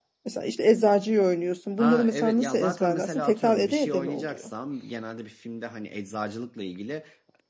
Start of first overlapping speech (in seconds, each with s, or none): 1.8 s